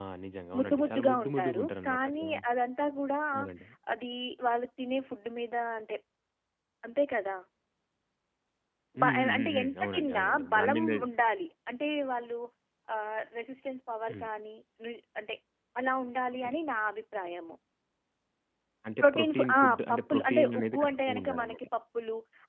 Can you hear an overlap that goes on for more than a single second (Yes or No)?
Yes